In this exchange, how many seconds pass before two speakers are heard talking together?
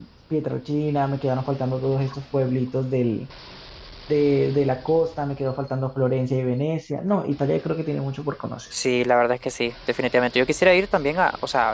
none

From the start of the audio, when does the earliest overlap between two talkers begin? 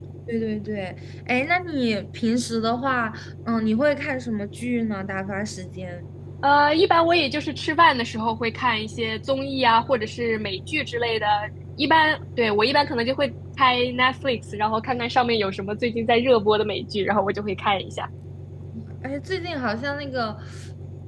none

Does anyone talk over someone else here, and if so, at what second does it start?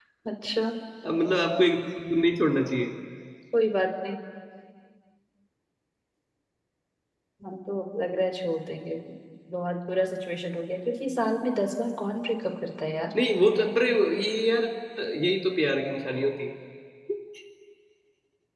none

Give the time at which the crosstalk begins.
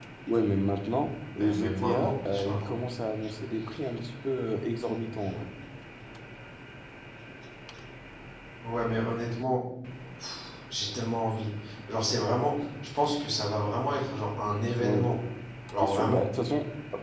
1.4 s

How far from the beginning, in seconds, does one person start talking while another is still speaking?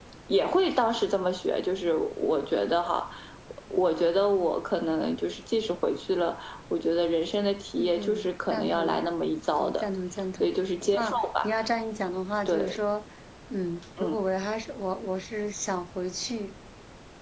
7.8 s

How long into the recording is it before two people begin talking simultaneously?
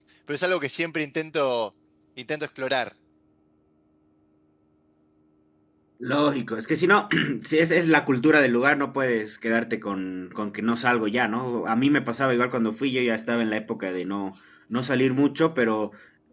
none

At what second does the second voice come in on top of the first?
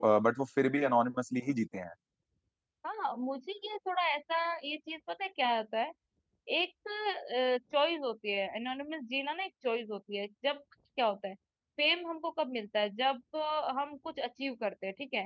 none

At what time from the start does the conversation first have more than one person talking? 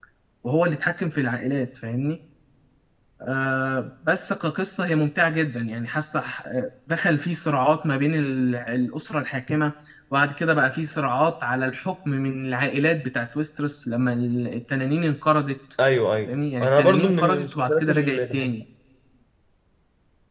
16.3 s

